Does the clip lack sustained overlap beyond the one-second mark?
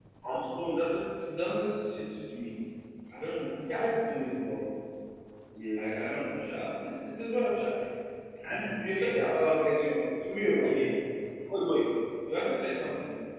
Yes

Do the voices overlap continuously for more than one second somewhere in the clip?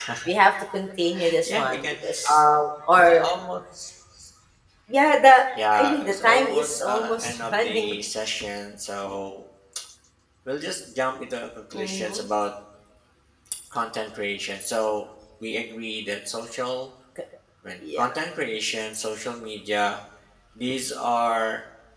Yes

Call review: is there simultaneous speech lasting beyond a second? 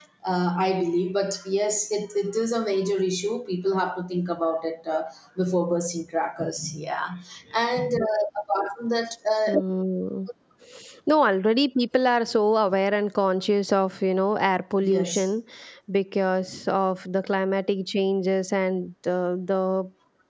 No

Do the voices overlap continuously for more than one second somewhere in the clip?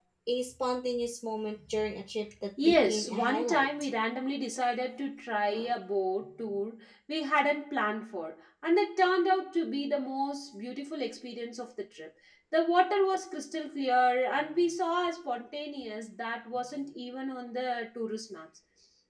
Yes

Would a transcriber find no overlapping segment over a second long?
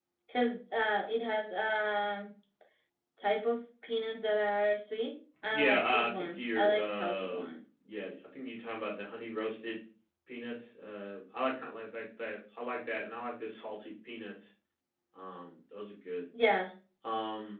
No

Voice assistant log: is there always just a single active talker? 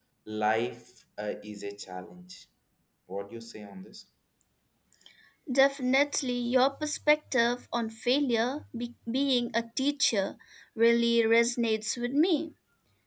Yes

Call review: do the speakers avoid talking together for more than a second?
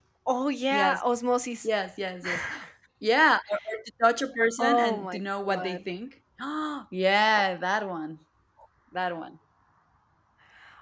No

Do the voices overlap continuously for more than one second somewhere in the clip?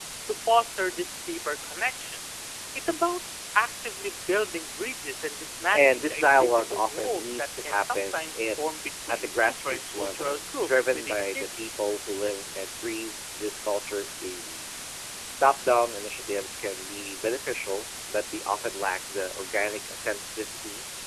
Yes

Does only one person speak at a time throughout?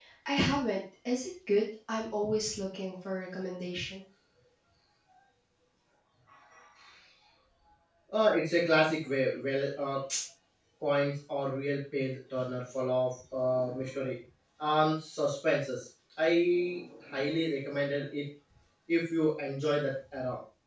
Yes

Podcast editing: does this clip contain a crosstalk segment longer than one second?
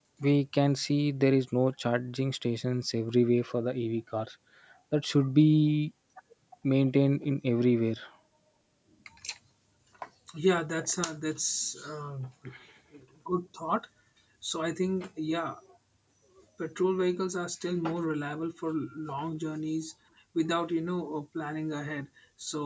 No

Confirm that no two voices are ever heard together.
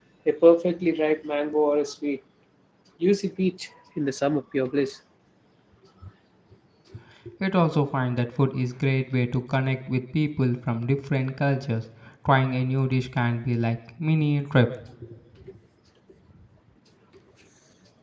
Yes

